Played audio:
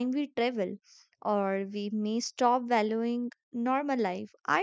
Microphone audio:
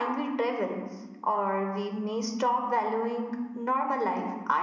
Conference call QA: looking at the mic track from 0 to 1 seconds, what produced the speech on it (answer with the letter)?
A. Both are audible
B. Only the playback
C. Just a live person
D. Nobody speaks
B